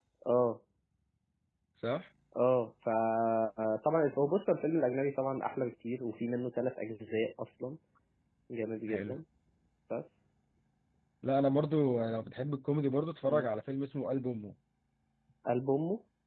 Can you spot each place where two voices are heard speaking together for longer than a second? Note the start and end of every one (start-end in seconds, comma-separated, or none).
none